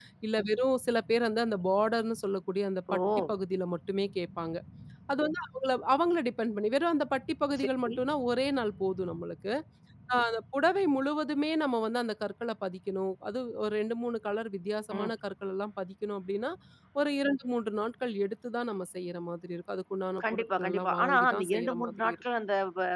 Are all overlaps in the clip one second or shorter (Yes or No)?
No